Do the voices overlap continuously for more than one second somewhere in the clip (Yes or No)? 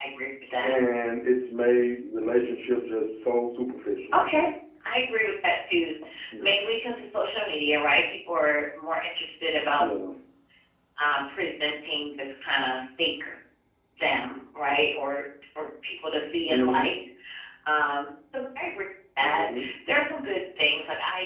No